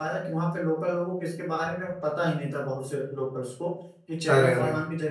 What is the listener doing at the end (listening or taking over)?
listening